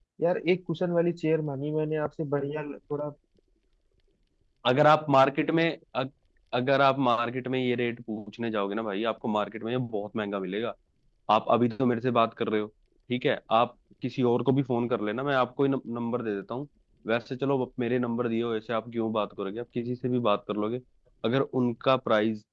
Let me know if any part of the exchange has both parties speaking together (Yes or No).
No